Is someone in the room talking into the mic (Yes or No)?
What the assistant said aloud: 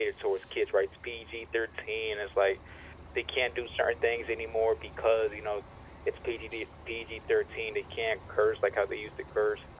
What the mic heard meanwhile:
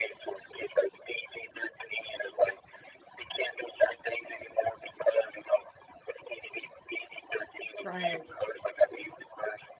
Yes